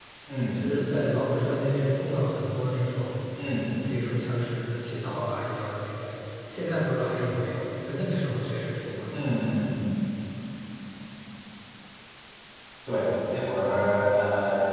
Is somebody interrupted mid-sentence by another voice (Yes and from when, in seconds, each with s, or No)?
No